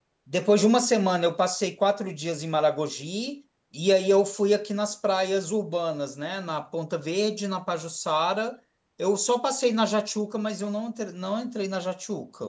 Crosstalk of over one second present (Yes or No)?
No